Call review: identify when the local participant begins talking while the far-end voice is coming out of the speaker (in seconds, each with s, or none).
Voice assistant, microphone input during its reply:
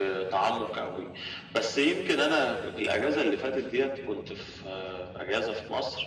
none